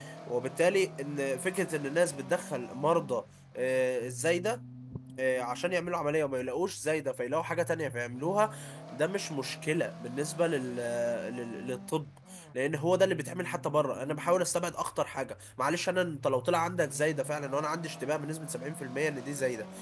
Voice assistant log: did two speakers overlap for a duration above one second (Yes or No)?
No